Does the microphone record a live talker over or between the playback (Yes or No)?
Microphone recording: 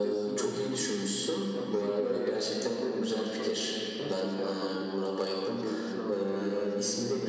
Yes